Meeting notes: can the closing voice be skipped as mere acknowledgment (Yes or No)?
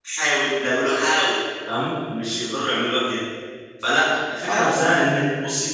Yes